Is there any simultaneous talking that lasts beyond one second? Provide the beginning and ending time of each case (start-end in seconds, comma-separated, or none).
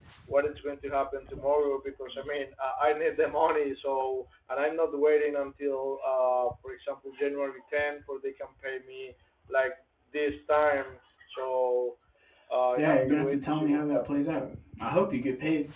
12.8-14.3